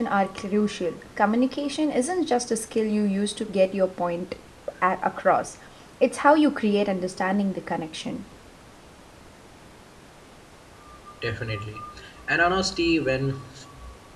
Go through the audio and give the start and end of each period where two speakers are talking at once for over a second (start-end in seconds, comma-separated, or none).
none